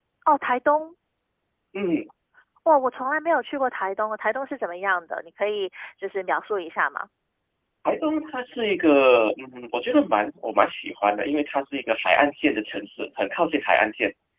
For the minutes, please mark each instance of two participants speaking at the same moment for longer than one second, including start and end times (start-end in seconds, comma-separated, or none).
none